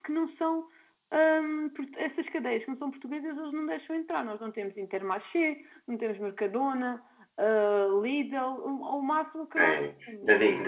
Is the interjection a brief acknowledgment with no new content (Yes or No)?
No